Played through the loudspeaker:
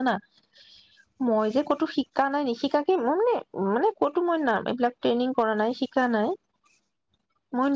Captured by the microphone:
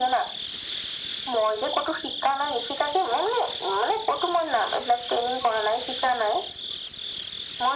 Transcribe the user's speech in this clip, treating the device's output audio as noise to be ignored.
none

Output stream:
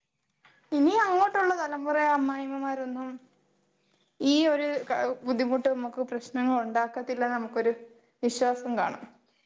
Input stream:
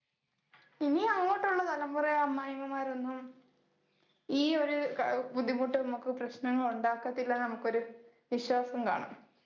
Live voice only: none

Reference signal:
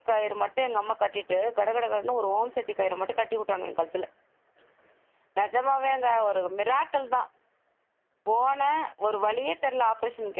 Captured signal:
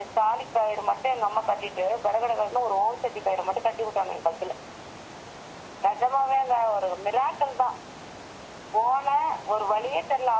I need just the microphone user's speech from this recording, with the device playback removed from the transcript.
none

